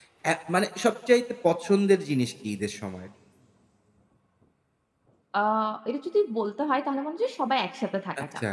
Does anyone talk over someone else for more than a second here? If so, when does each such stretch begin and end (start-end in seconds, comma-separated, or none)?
none